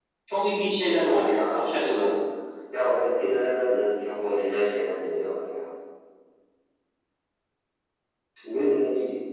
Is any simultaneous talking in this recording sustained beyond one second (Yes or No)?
Yes